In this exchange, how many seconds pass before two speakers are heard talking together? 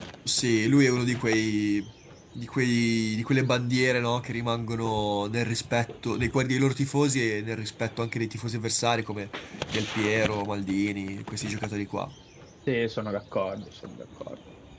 none

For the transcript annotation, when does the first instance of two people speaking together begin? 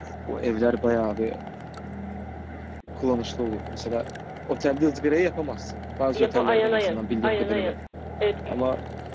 6.1 s

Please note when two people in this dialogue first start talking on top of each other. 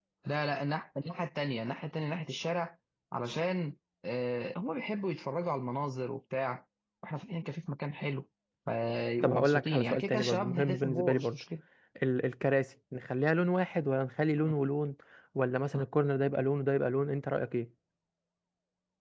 9.2 s

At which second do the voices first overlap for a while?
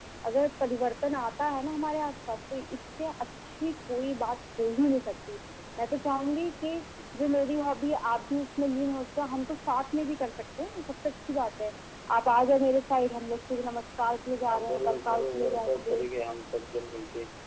14.5 s

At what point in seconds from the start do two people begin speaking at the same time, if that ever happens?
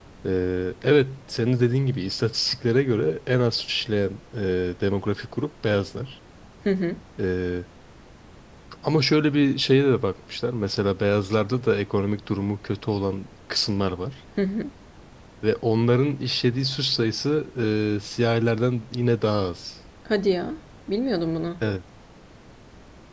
none

